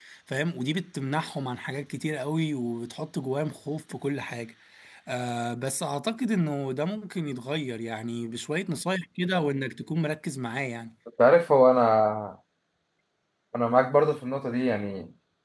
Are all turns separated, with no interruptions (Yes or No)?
Yes